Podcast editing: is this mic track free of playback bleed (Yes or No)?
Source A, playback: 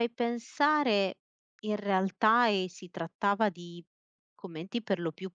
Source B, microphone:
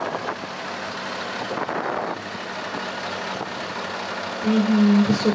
Yes